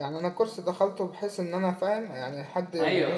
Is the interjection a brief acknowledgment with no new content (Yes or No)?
No